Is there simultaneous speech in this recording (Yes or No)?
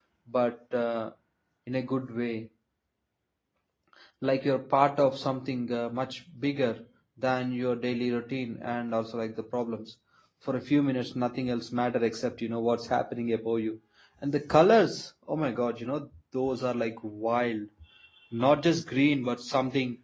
No